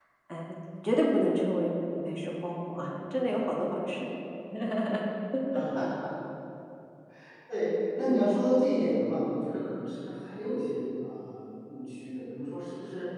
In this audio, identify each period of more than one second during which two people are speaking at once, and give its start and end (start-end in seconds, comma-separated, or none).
none